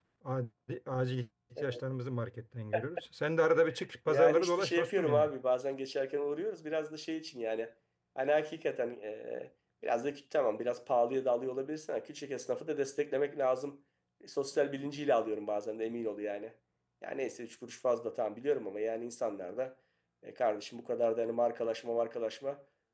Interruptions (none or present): present